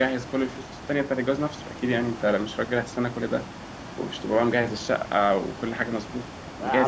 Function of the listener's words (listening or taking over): taking over